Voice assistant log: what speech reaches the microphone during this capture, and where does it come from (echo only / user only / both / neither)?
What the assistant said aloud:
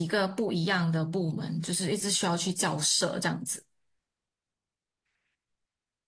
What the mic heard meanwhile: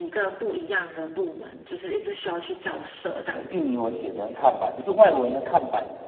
both